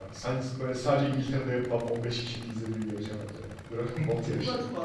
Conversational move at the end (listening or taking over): taking over